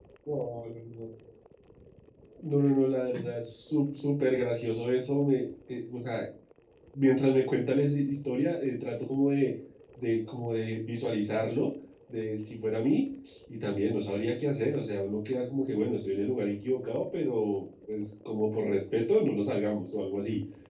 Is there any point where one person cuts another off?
No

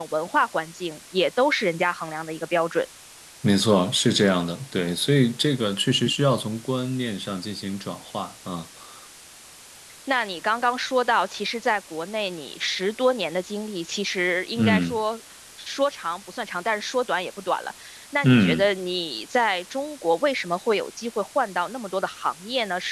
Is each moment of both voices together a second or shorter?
Yes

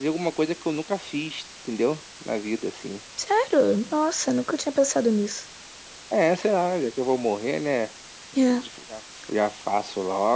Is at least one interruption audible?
No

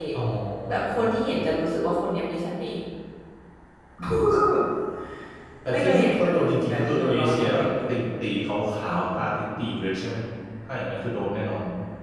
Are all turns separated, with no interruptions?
No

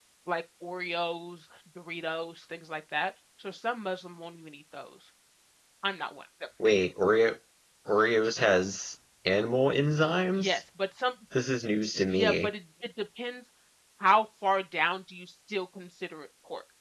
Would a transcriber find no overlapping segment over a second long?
Yes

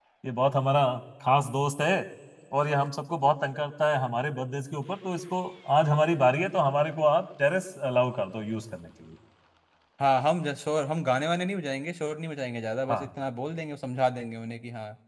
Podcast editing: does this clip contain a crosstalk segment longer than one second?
No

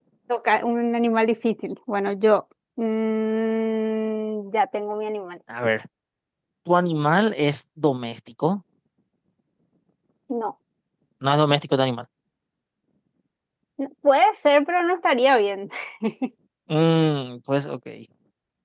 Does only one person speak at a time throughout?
Yes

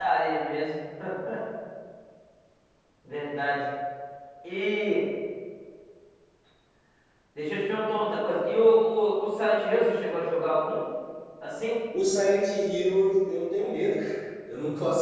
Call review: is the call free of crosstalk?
Yes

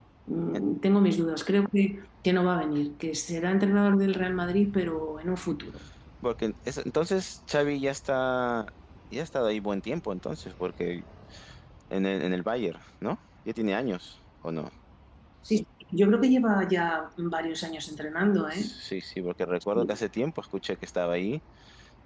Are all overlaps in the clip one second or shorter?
Yes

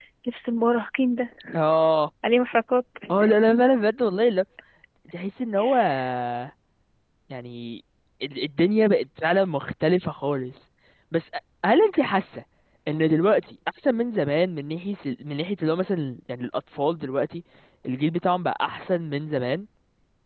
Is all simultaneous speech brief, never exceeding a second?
Yes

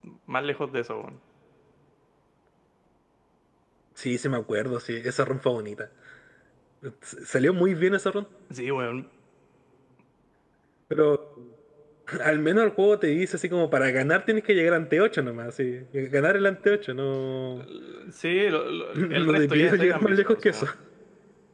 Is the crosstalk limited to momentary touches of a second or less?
No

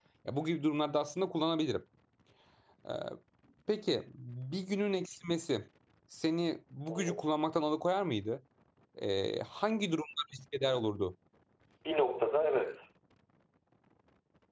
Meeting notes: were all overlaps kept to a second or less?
Yes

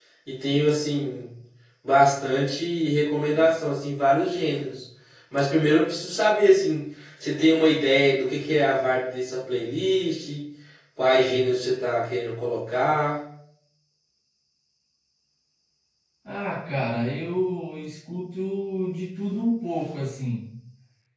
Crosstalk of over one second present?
No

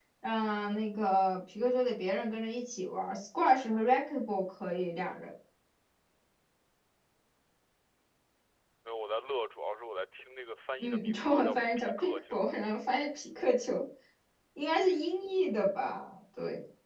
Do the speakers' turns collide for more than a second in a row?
Yes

